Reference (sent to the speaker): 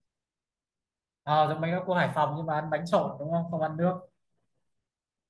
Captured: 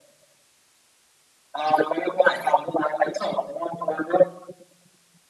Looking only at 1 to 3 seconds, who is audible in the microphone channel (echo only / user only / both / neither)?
echo only